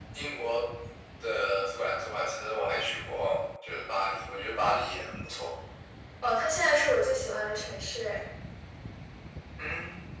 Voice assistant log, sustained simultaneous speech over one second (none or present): none